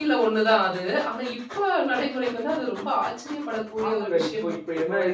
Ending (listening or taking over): taking over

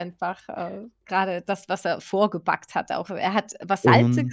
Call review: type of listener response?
listening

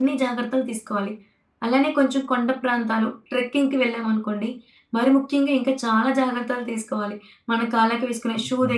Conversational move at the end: listening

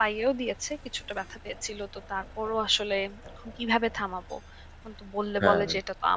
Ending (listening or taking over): listening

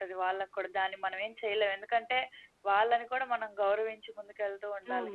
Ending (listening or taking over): taking over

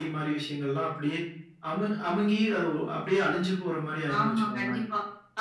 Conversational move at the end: taking over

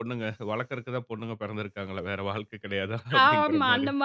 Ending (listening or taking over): taking over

